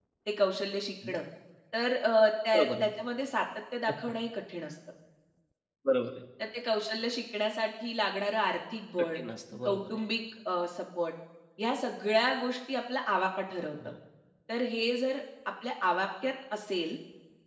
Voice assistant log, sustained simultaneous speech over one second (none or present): none